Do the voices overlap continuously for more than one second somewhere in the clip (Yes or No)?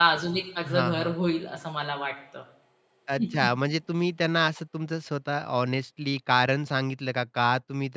No